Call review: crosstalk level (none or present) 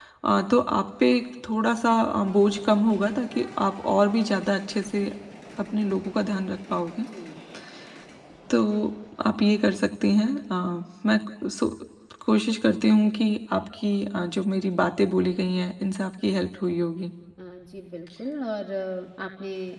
none